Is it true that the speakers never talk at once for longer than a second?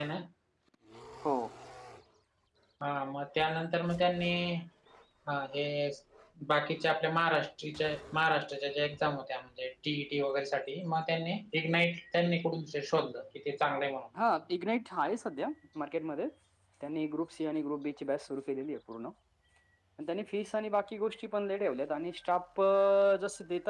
Yes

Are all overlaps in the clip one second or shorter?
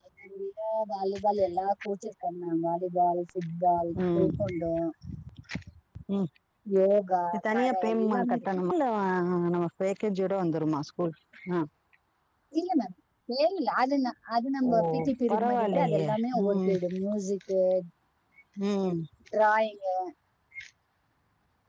No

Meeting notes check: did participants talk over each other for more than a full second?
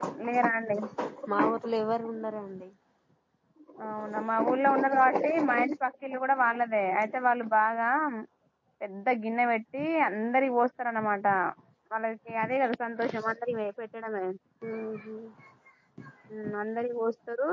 No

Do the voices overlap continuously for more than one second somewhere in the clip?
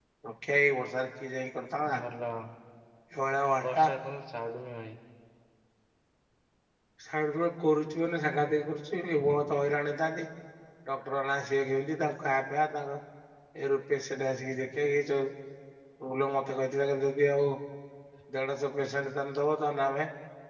No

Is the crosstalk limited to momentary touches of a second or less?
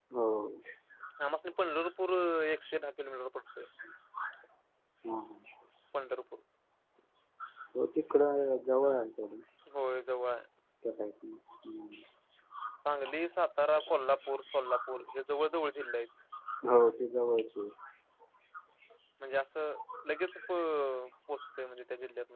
Yes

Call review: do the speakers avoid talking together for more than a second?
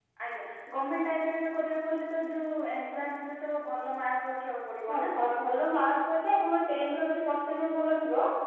Yes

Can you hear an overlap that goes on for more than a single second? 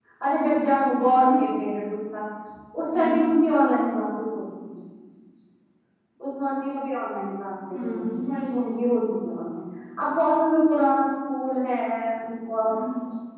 No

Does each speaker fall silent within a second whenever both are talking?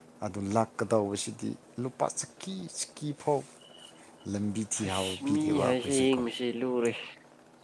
No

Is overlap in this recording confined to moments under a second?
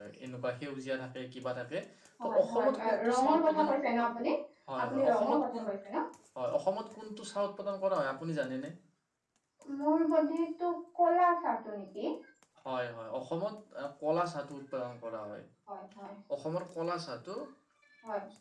No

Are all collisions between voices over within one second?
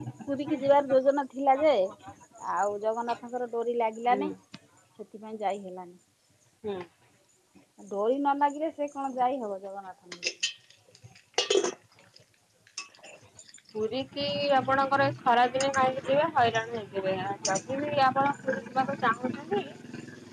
Yes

